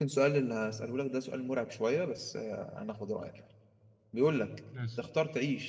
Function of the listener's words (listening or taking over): listening